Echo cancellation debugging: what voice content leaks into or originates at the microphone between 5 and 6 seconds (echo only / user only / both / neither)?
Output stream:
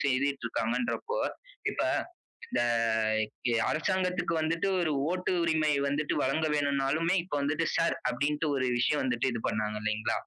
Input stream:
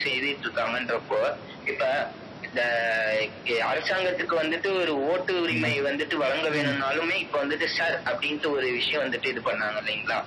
both